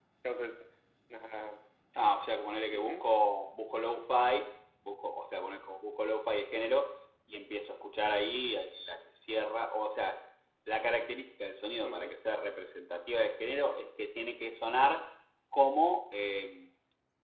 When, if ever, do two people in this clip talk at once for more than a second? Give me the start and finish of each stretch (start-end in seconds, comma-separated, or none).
none